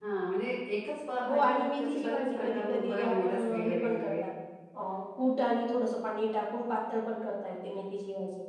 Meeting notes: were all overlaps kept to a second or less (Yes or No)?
No